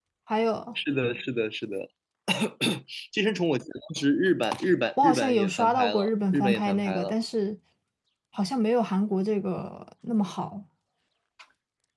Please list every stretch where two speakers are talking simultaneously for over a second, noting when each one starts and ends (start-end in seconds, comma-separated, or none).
5.0-7.1